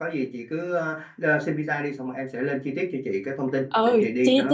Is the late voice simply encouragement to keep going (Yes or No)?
No